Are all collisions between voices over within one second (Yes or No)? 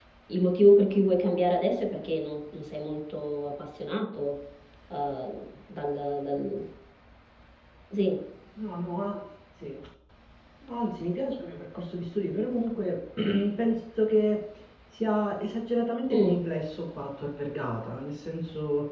Yes